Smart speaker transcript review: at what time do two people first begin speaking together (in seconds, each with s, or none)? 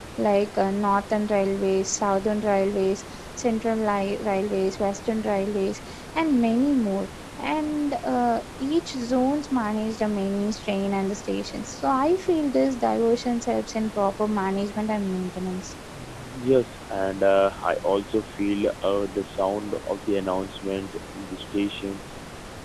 none